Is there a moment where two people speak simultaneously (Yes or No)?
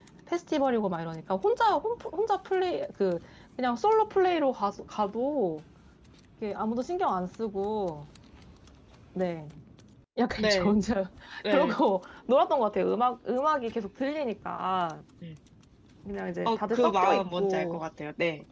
Yes